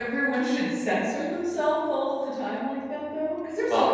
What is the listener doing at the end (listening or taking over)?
listening